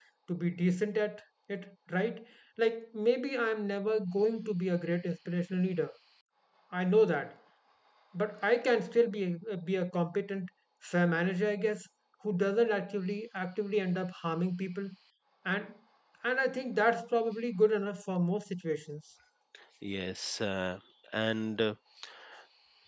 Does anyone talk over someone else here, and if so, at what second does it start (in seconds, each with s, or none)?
none